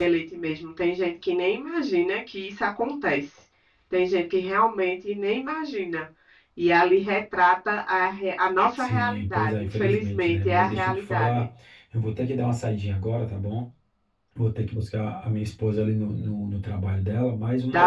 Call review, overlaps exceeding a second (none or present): present